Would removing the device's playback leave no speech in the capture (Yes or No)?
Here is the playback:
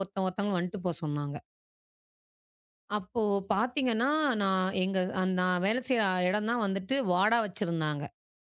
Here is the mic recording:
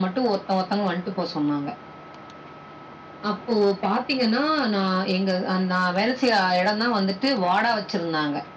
Yes